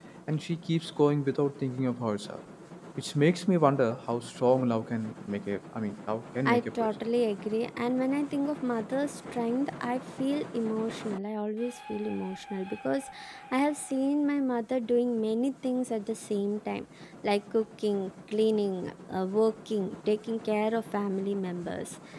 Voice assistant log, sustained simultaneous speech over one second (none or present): none